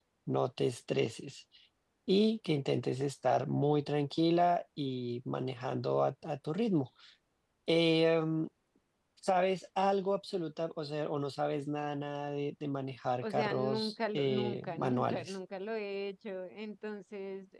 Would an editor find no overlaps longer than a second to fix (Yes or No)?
No